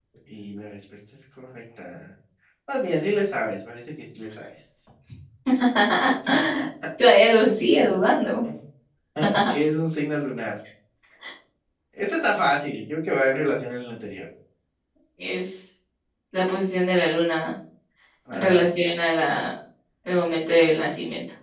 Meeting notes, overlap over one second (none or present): none